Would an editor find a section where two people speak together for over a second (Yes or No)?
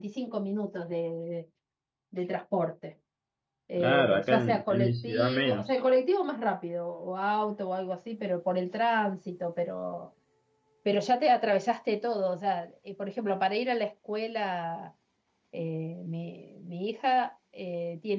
Yes